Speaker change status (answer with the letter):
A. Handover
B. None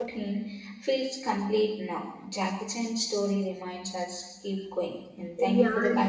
A